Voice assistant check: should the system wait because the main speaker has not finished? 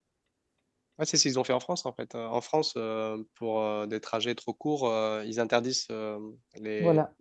Yes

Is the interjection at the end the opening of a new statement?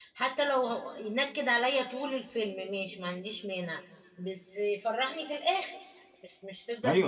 Yes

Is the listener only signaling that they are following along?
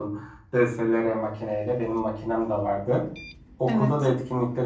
Yes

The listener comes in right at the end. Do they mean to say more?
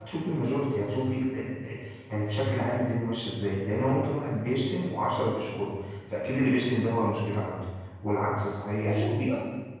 No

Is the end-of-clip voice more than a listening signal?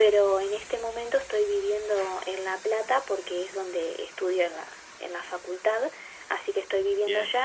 No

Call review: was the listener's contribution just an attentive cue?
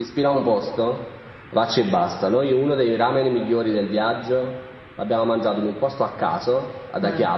Yes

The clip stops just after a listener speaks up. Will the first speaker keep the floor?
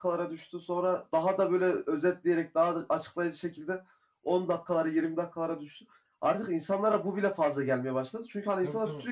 Yes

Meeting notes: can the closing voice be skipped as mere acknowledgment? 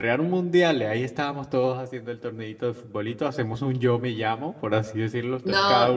No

